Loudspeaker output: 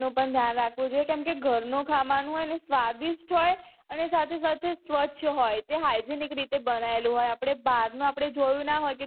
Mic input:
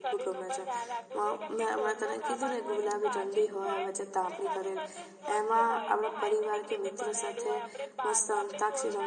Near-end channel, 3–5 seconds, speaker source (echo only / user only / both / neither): both